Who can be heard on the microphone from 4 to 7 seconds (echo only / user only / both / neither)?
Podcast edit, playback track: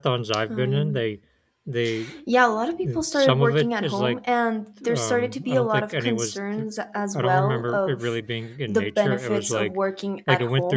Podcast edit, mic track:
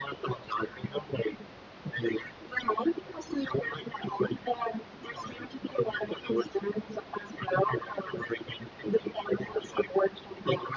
echo only